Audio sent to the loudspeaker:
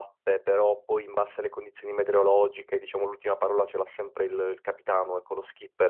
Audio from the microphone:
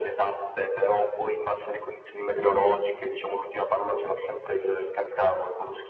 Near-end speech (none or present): none